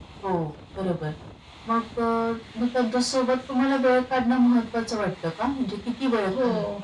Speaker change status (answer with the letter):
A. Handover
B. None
A